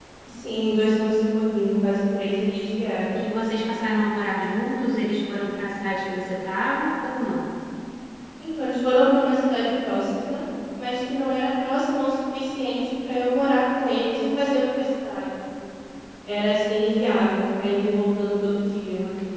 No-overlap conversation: Yes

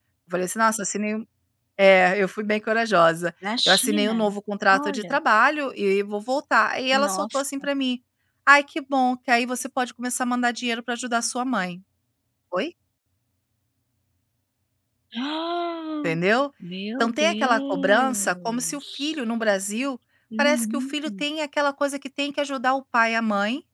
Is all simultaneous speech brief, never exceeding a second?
No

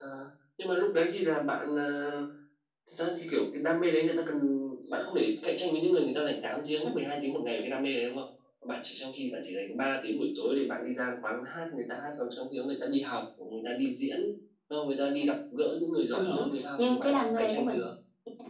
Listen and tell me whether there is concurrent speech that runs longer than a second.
Yes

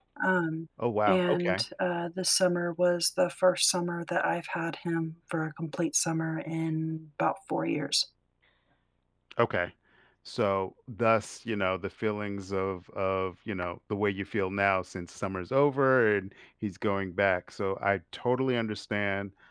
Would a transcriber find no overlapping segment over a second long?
Yes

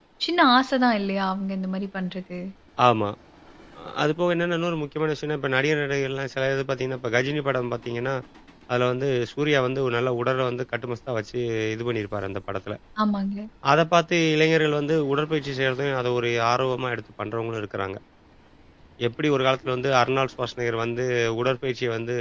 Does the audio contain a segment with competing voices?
No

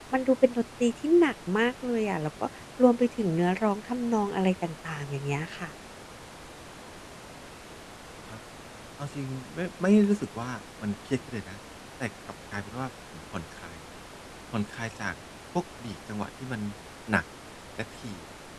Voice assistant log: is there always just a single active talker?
Yes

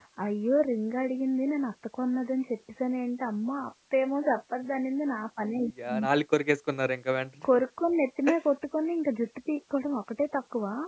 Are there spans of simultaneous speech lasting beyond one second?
No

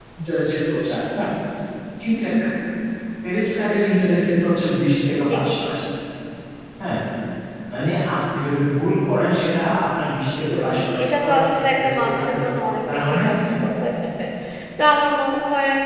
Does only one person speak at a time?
No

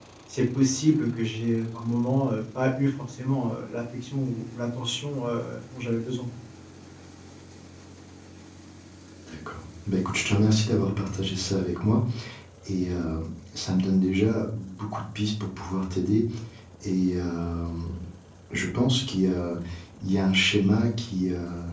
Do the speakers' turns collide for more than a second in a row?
No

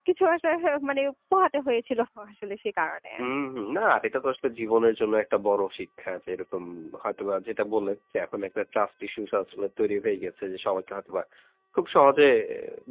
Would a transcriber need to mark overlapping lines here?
No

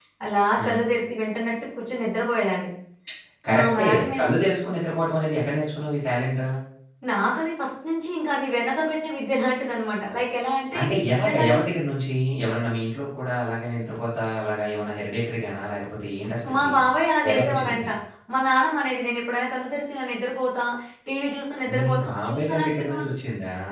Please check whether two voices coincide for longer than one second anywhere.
Yes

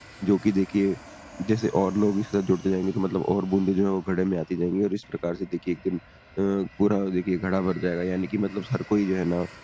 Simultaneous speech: No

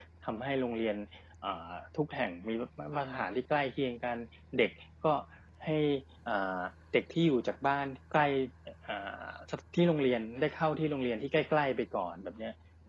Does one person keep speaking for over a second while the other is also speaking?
No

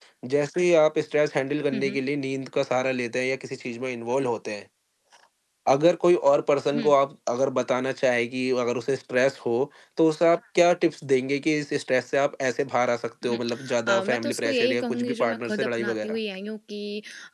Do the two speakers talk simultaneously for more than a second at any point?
Yes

